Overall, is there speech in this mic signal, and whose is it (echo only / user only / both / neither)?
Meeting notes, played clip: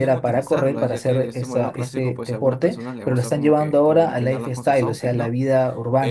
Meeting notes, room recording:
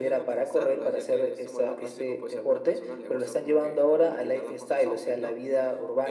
echo only